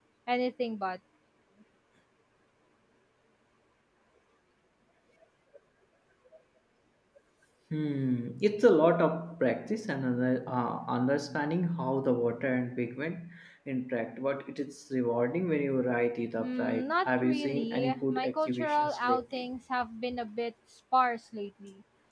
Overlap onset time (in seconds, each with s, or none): 16.4 s